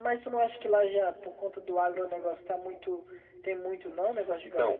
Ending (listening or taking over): taking over